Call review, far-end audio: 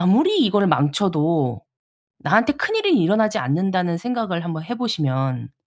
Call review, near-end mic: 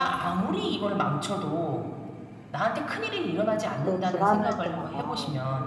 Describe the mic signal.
both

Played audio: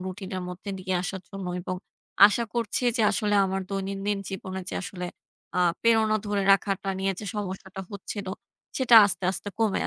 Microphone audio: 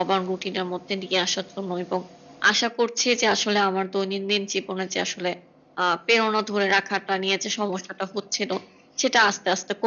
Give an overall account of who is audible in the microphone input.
echo only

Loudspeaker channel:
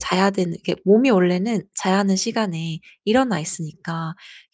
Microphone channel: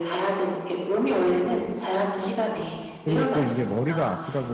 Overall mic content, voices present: both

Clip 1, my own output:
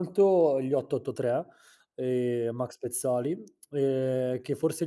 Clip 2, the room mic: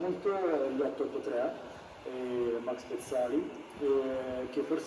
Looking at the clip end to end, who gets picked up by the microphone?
echo only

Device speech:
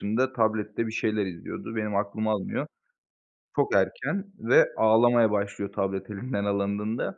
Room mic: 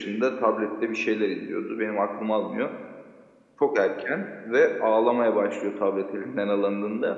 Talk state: echo only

